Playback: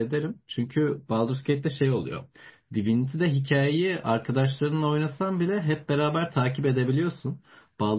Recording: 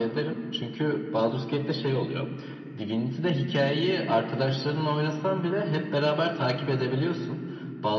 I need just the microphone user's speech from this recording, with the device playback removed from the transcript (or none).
none